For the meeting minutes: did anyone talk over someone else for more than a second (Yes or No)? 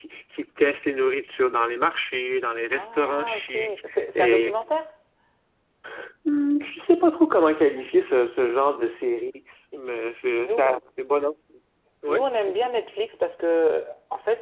Yes